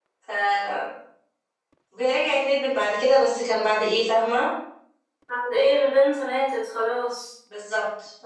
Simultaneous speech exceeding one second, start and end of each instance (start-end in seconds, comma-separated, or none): none